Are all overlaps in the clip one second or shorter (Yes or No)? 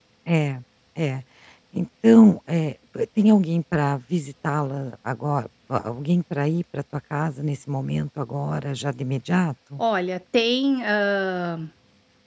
Yes